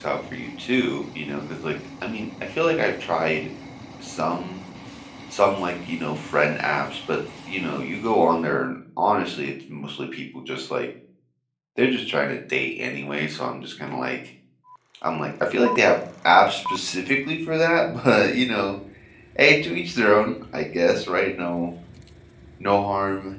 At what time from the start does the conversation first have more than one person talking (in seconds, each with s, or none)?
none